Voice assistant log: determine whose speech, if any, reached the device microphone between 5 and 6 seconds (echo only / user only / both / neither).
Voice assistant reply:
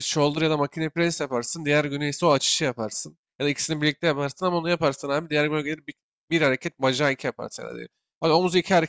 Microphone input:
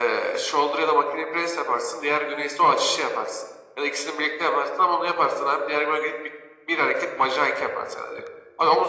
echo only